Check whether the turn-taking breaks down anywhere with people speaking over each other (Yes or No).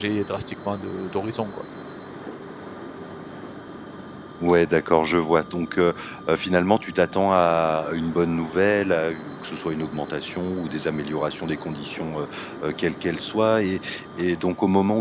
No